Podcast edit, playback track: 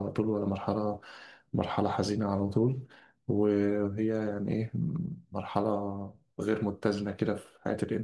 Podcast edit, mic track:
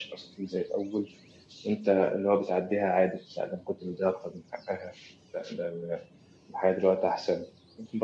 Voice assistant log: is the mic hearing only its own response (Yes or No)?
No